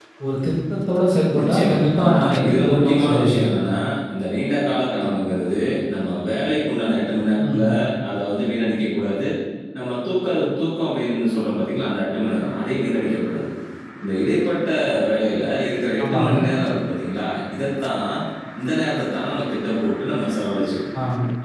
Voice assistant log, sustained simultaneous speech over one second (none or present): present